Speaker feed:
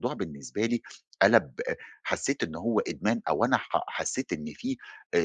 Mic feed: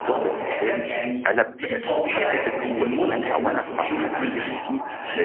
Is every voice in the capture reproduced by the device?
No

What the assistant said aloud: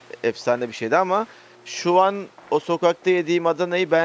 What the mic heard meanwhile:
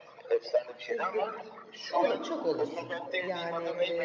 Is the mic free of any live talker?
No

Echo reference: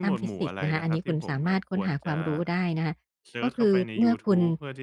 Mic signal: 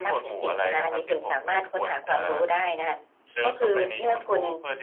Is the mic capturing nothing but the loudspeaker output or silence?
Yes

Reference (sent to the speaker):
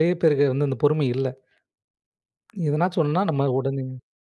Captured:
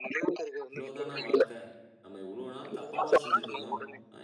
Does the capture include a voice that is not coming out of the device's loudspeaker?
Yes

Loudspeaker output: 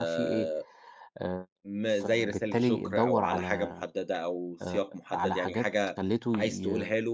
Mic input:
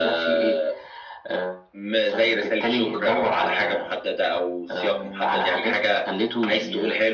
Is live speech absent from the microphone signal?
No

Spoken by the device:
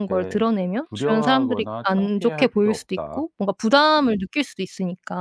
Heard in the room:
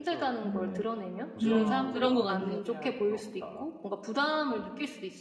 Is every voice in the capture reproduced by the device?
No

